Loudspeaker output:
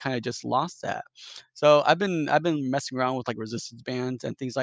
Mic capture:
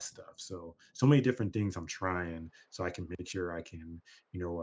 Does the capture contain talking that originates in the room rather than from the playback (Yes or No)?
Yes